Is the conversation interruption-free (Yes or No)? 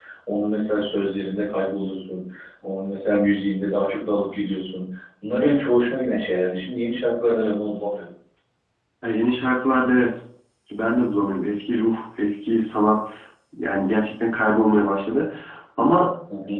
Yes